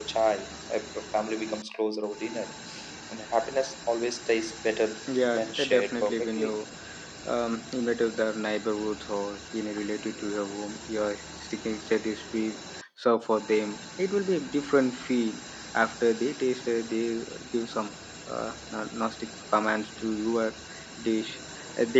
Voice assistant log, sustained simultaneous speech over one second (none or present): present